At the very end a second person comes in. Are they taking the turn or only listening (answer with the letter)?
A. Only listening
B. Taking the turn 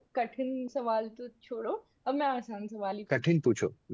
B